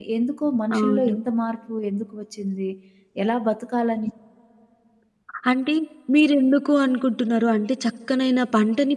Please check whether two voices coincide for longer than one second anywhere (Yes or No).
No